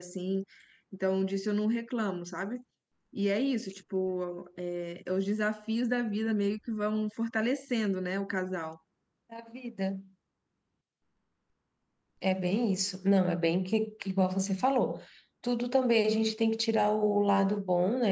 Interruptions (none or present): none